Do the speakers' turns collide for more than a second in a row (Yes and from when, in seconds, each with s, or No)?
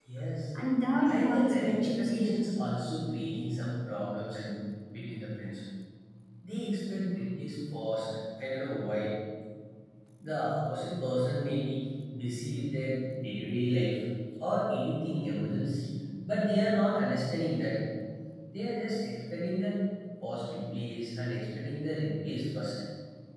Yes, from 1.1 s